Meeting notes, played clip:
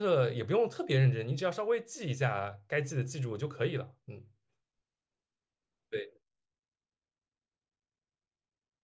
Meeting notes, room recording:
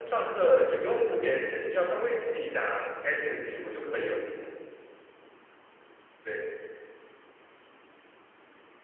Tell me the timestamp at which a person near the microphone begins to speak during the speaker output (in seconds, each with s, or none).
none